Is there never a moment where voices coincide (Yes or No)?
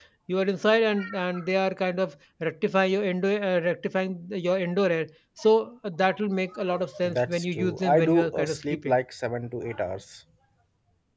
No